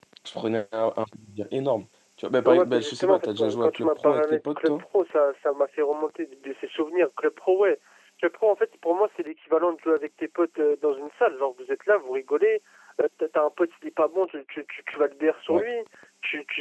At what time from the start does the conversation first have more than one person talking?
2.5 s

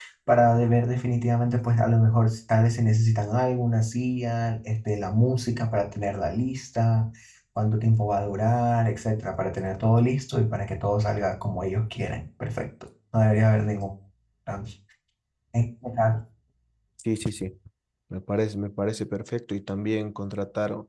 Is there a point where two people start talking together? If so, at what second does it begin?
none

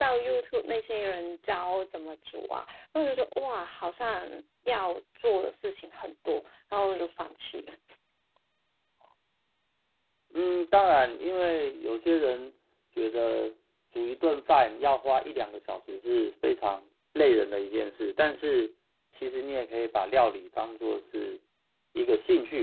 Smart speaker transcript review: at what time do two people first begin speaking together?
none

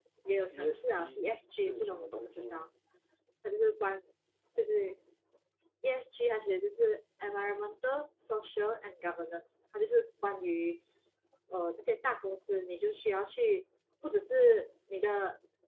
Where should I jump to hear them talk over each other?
0.5 s

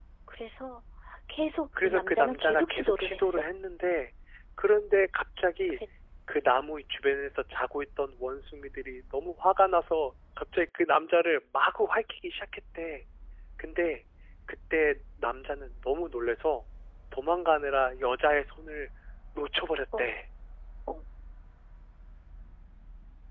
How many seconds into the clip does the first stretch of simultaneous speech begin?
1.8 s

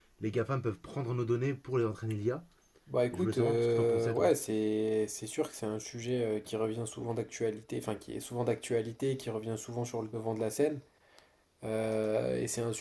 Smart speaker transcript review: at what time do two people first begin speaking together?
3.1 s

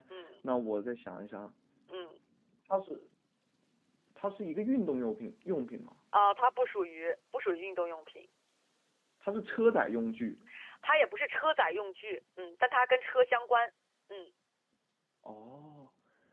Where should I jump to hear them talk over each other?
none

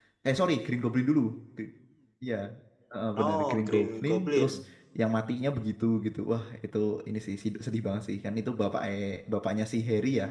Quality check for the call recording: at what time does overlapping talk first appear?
3.2 s

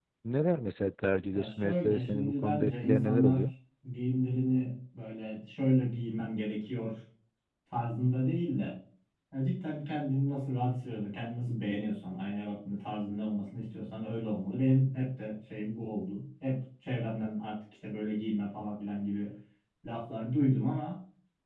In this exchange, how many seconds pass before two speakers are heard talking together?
1.3 s

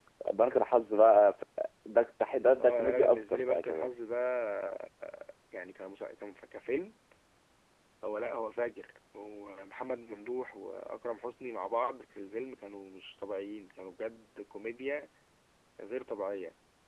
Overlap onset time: 2.6 s

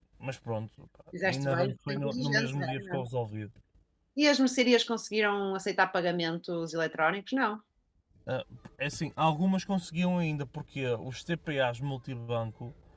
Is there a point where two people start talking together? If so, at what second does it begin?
1.2 s

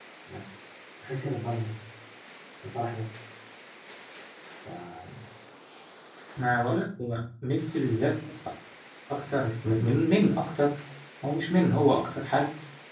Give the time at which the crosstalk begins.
none

